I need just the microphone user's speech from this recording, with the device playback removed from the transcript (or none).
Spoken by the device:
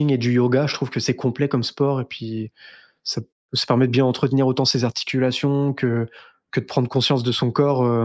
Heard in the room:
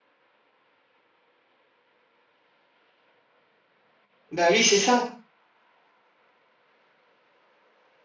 Bah, oui, c'est ça.